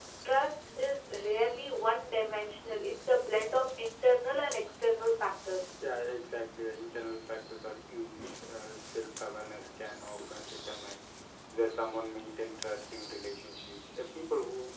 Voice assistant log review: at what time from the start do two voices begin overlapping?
none

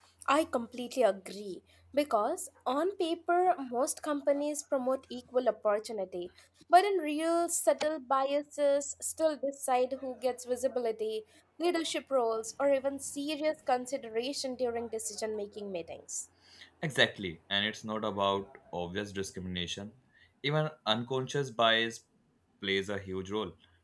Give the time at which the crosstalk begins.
none

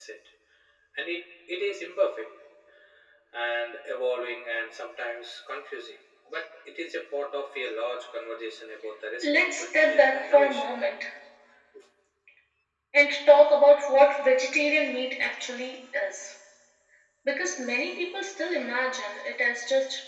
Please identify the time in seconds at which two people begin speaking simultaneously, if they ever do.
9.2 s

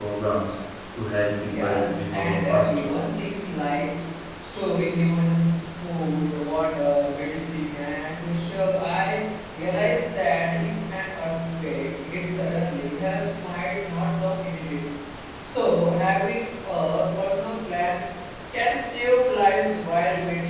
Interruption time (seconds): 1.4 s

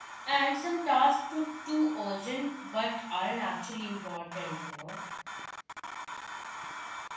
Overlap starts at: none

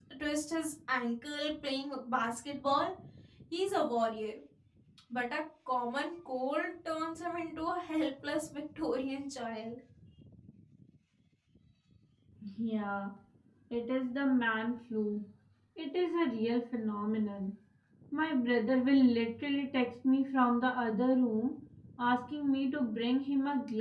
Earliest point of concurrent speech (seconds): none

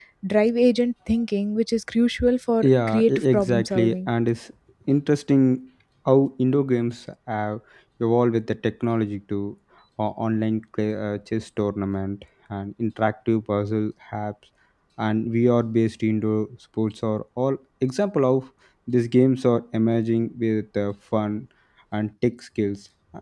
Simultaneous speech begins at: 2.6 s

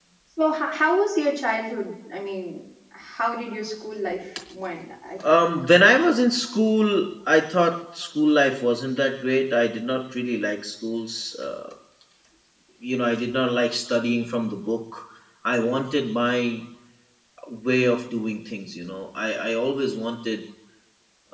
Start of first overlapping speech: none

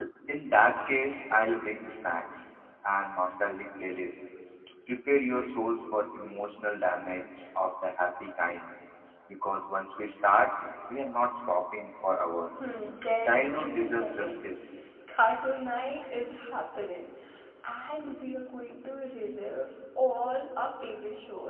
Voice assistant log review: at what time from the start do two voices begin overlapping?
13.2 s

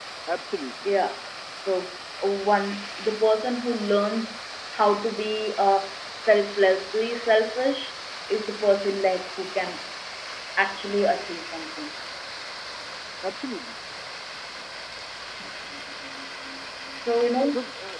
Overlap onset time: none

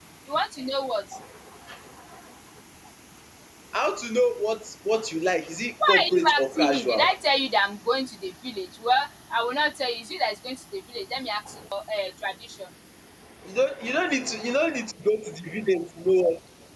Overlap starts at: 5.8 s

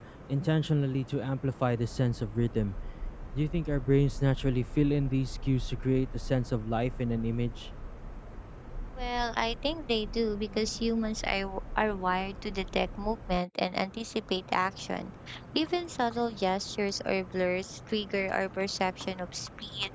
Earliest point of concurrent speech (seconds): none

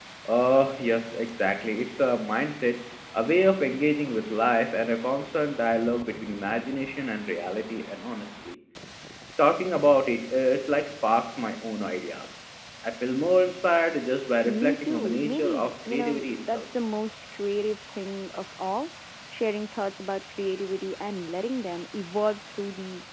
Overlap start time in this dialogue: 14.4 s

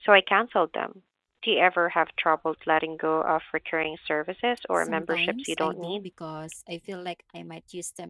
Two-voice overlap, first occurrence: 4.8 s

